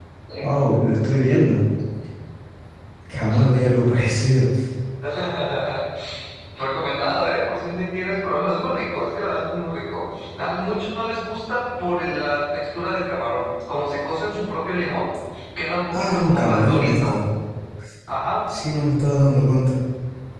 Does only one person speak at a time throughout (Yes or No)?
No